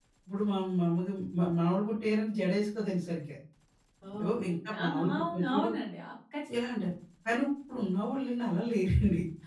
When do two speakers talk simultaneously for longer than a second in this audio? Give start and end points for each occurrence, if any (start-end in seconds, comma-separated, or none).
4.2-5.7